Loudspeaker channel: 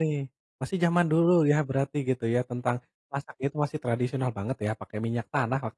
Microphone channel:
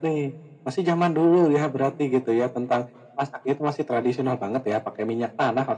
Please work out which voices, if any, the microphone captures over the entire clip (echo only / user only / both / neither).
echo only